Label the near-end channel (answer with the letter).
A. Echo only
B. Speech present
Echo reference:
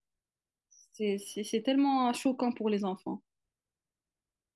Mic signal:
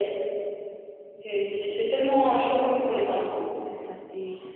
B